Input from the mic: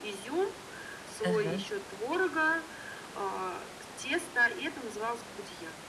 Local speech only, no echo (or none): Ага.